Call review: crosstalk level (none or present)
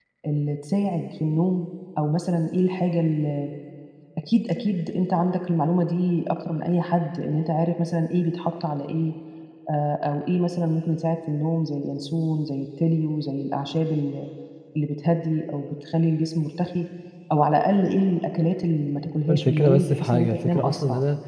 present